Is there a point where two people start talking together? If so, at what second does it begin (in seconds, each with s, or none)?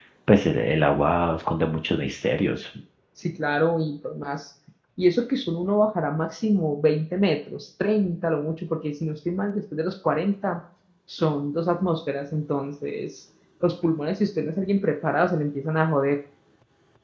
none